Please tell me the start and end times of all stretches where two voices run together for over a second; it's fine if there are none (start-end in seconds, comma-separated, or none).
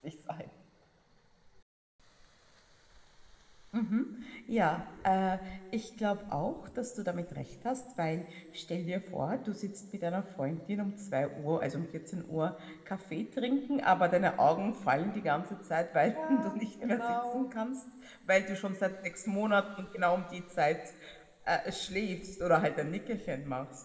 16.3-17.5